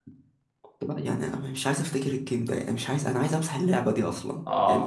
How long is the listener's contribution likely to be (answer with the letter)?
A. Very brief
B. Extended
B